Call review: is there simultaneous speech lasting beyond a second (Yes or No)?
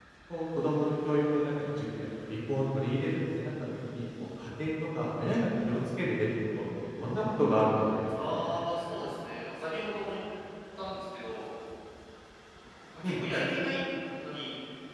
No